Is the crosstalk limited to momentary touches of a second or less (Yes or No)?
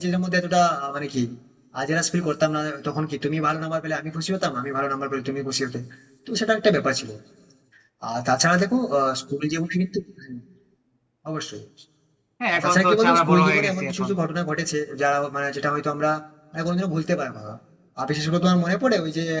No